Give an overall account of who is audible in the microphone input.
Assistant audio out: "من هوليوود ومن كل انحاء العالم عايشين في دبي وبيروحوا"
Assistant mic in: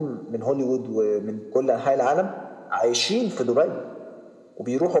echo only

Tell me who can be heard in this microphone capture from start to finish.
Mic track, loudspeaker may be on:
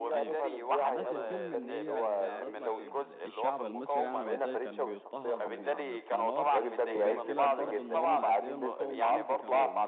both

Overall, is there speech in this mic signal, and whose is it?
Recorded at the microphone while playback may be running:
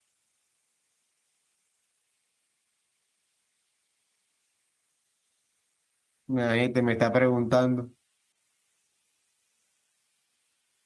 user only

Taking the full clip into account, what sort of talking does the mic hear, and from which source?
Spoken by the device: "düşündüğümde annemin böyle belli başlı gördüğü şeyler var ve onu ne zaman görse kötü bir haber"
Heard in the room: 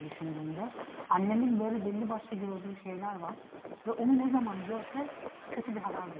echo only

